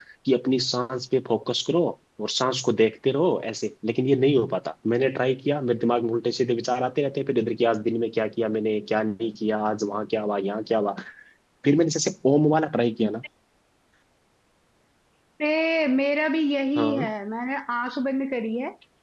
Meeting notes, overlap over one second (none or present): none